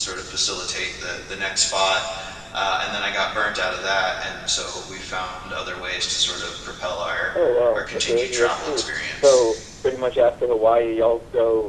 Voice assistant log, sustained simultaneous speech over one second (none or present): present